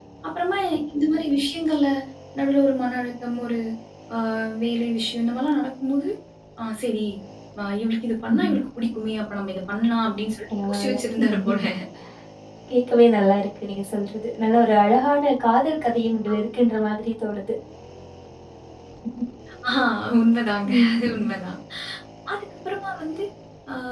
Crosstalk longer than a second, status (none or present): none